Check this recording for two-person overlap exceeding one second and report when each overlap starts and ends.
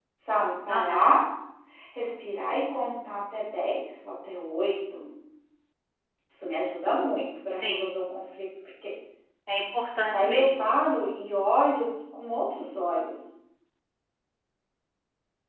none

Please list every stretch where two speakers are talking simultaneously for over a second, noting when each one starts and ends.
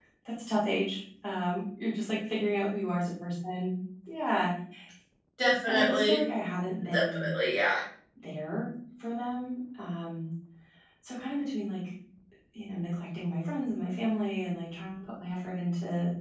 none

